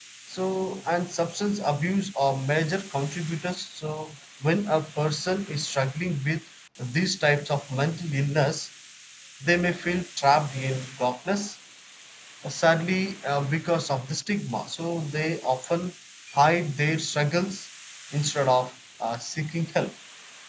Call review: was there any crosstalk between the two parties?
No

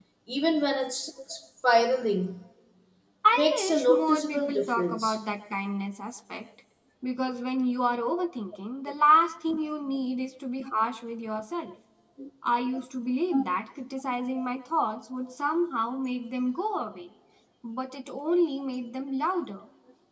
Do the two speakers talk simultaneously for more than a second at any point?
Yes, from 3.3 s

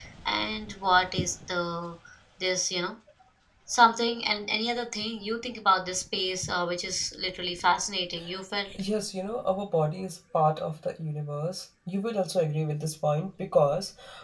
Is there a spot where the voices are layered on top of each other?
No

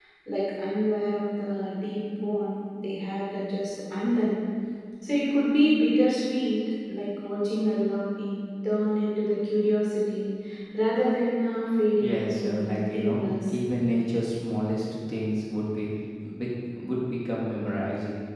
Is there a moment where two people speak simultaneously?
Yes, from 12.0 s

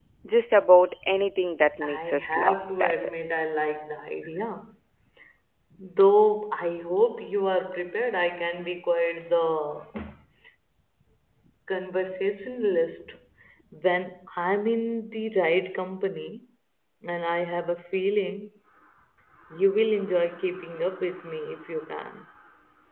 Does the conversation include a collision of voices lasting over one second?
Yes, from 1.8 s

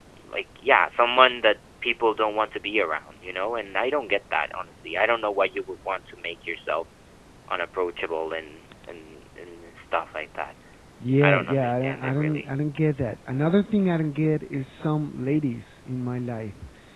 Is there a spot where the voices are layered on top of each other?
Yes, from 11.2 s

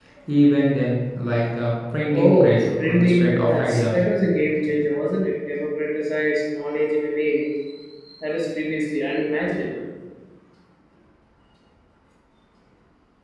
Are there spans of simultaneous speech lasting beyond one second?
Yes, from 2.1 s

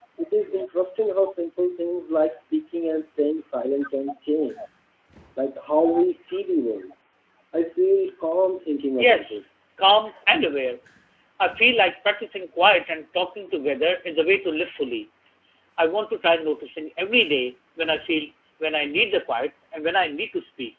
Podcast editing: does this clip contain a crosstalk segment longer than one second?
No

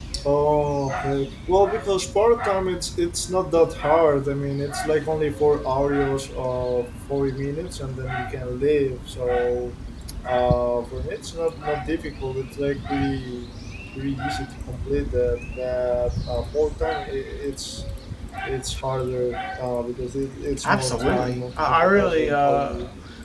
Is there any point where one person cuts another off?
Yes, from 20.6 s

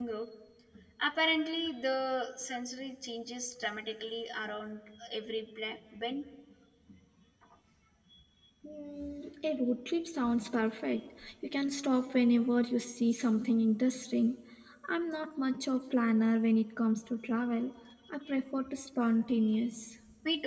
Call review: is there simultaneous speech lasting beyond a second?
No

